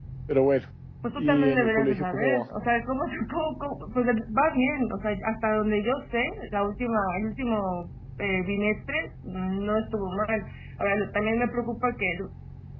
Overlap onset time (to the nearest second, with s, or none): 1 s